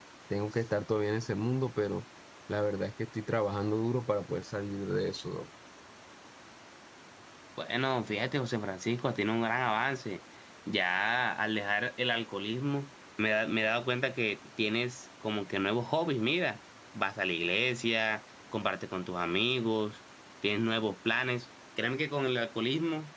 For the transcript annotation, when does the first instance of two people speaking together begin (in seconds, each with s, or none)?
none